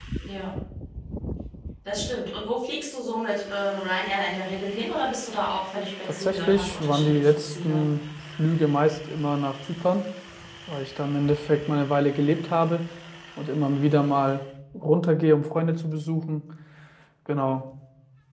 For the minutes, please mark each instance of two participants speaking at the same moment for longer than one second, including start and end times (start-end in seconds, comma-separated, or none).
6.0-7.8